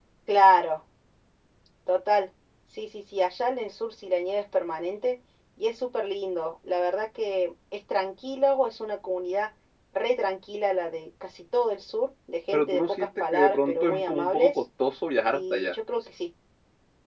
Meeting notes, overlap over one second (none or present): present